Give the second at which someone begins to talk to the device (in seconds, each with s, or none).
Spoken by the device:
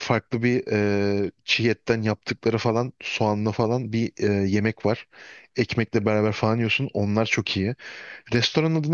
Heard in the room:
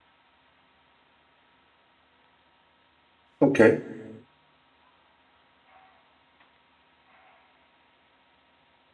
3.4 s